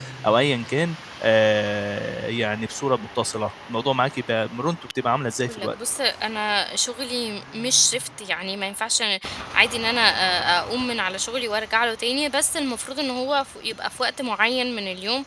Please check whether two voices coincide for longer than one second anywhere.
No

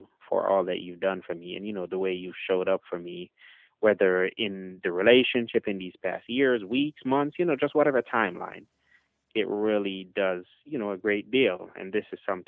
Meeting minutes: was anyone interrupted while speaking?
No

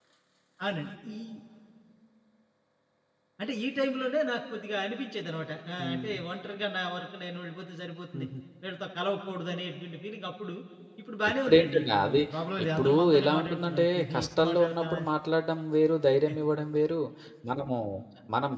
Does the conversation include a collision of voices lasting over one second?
Yes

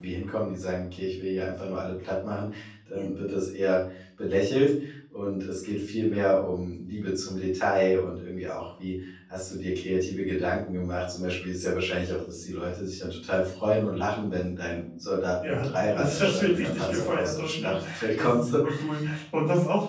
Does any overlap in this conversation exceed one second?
Yes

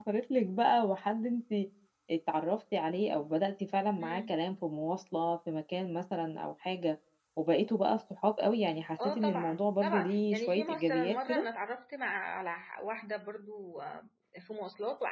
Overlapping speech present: Yes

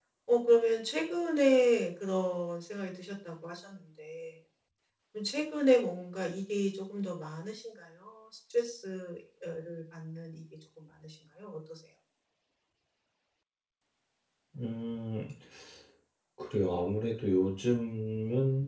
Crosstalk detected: No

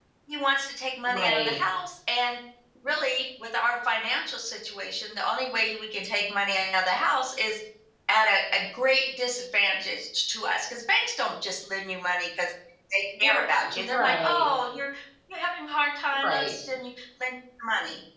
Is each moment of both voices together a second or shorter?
No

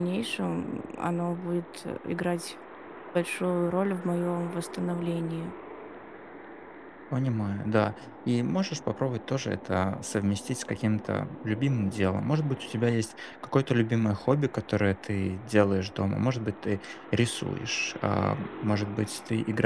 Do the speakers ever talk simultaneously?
No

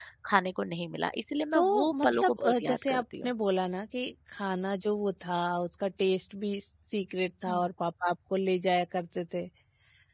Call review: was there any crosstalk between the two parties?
Yes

